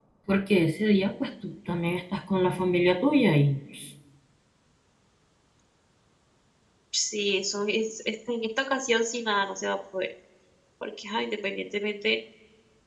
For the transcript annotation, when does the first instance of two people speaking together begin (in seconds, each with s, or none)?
none